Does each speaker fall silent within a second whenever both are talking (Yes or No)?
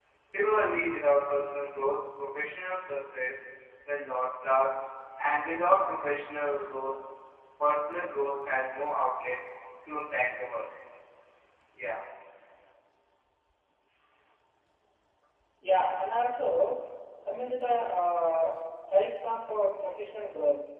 Yes